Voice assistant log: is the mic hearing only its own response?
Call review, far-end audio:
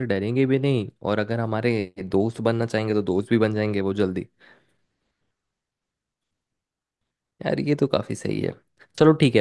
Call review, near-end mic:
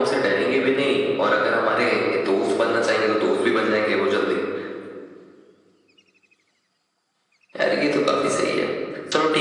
Yes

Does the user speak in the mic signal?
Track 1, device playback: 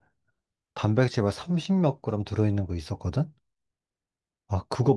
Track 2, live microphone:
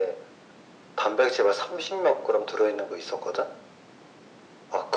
No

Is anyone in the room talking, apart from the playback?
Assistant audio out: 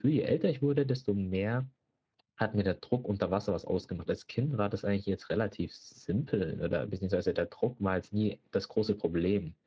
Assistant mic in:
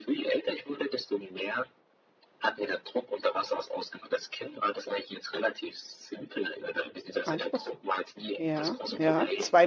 Yes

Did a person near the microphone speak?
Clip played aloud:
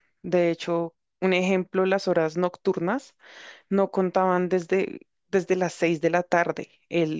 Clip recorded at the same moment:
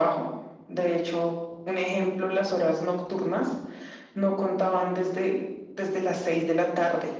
No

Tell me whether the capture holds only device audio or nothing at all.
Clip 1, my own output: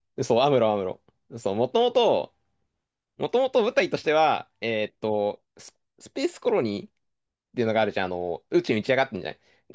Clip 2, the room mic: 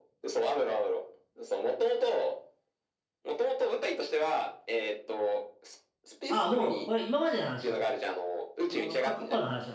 No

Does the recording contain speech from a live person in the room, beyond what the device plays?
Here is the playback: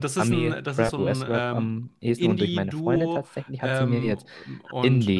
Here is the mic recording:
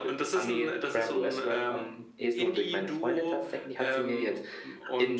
No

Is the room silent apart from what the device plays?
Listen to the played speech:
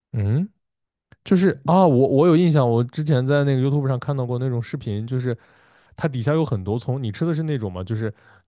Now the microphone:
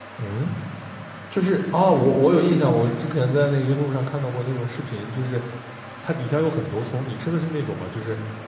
Yes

